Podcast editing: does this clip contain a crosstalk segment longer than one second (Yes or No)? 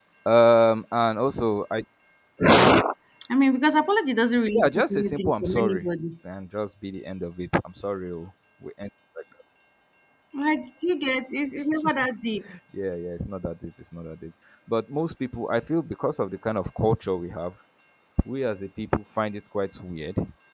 Yes